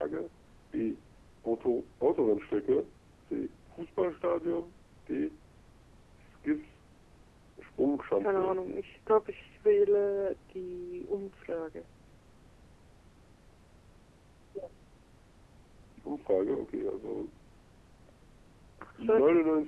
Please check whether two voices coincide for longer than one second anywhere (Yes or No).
No